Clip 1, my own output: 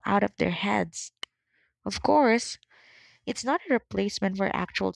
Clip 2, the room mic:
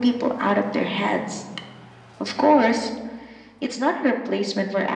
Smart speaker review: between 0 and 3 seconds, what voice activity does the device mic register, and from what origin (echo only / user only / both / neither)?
echo only